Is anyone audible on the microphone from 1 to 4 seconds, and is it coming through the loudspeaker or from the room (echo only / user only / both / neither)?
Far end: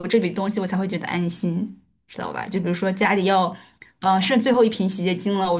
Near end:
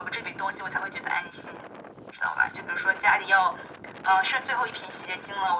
echo only